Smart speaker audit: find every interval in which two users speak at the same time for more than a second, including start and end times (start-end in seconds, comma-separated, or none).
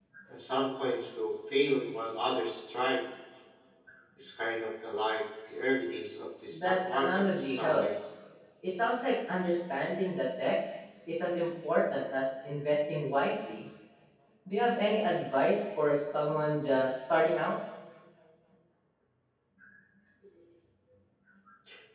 6.5-7.8